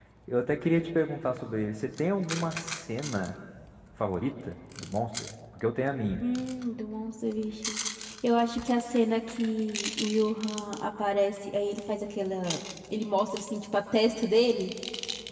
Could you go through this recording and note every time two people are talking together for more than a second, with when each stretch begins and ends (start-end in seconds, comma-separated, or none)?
none